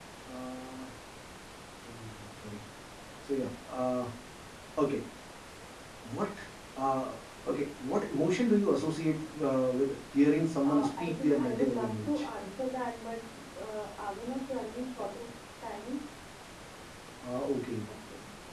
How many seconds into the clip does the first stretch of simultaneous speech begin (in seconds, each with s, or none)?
10.6 s